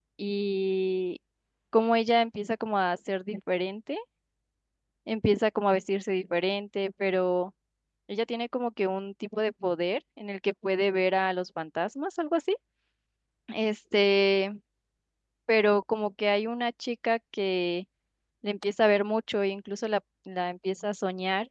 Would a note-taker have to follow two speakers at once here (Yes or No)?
No